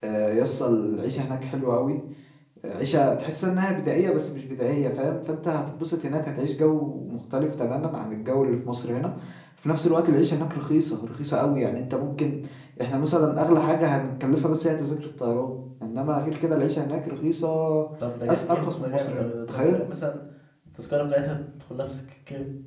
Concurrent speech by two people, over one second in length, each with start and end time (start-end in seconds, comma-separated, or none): 18.3-19.8